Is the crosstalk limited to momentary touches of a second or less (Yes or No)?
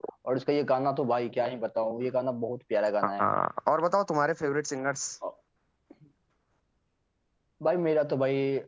Yes